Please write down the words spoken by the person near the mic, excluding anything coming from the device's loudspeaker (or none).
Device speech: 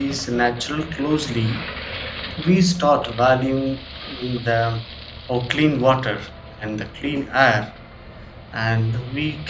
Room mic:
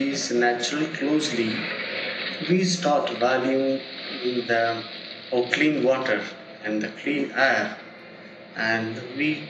none